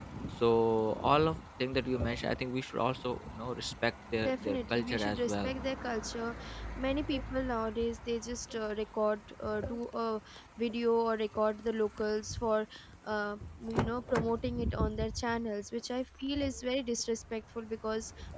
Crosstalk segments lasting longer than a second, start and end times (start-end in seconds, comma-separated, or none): 4.2-5.5